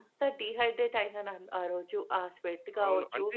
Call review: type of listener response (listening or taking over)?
taking over